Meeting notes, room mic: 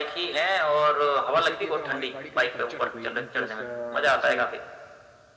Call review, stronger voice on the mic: echo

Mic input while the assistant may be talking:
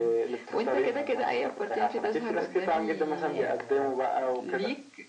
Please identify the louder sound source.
echo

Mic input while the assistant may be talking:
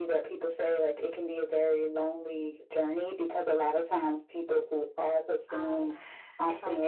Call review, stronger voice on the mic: echo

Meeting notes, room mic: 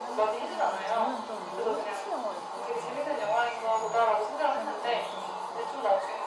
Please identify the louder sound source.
echo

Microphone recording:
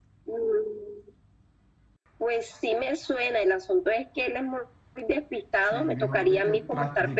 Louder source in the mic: echo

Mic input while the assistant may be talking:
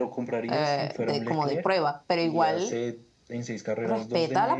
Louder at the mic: user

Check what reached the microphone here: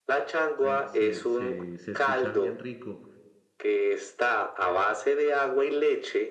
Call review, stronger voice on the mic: echo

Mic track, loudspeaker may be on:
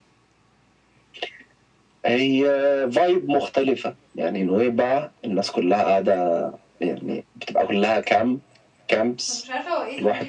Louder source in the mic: echo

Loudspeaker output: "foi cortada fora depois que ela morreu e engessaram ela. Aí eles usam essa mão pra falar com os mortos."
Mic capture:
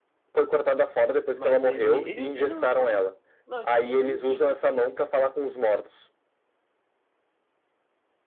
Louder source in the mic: echo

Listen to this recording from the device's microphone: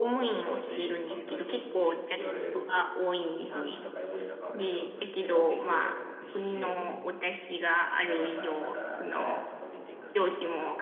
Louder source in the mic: user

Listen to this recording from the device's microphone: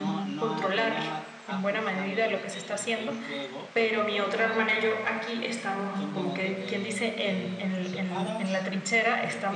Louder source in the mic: echo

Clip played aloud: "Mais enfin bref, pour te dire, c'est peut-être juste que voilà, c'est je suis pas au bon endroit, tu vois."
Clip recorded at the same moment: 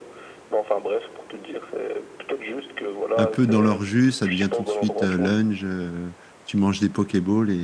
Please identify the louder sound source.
user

